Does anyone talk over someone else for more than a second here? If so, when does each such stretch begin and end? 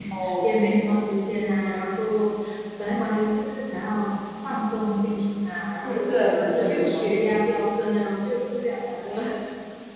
5.8-7.1

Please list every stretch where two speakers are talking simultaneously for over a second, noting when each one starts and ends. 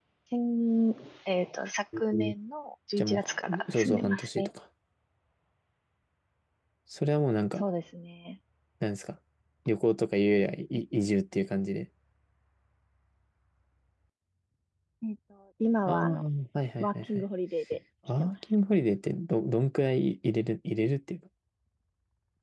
3.0-4.5

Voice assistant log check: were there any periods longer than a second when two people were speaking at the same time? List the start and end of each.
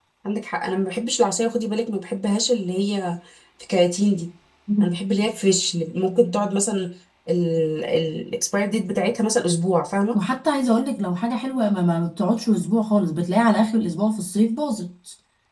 none

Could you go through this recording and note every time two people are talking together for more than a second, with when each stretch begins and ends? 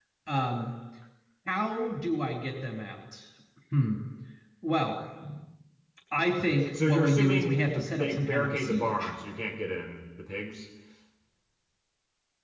6.7-9.1

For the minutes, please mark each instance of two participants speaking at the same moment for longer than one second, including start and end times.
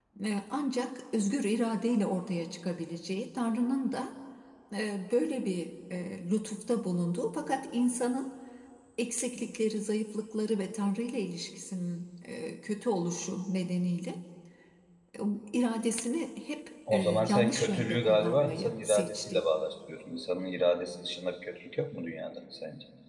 16.9-19.4

